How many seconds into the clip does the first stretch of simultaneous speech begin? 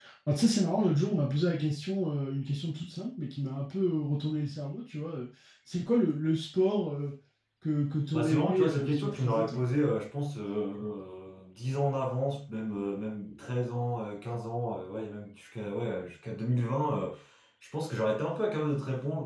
8.1 s

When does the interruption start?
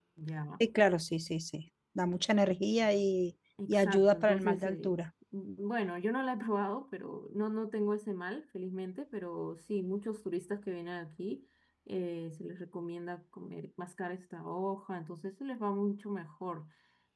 3.6 s

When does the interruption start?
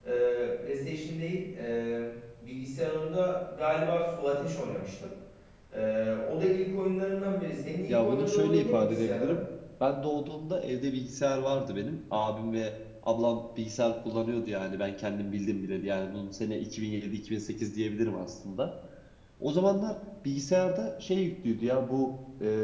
7.9 s

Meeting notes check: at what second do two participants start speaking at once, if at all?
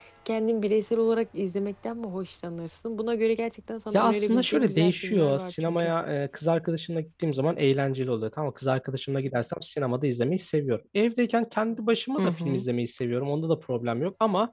3.9 s

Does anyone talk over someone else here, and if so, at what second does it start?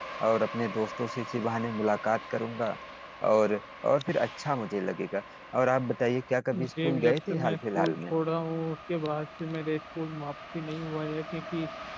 6.5 s

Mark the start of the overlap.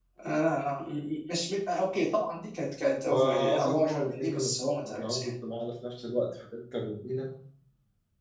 3.0 s

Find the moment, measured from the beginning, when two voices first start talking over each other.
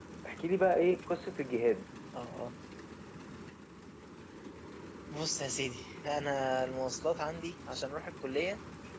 none

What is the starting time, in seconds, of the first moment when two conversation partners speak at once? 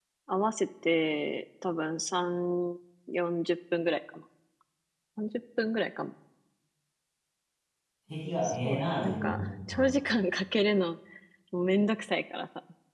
8.4 s

